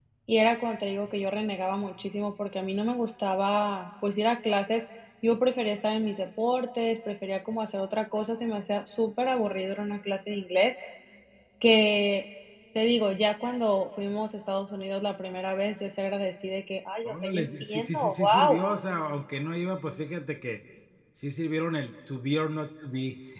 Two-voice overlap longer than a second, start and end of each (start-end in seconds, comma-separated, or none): 17.0-18.6